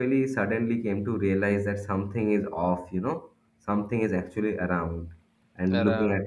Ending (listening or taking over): listening